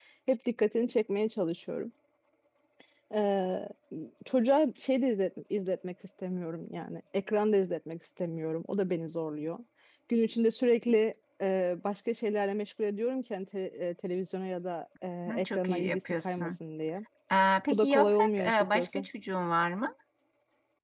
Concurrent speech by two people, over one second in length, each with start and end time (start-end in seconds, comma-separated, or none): 15.3-16.5, 17.7-19.0